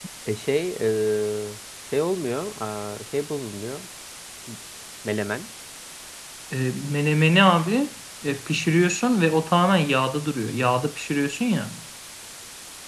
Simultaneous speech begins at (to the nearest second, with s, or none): none